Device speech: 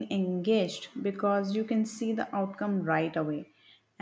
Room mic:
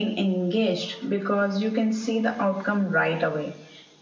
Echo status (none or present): present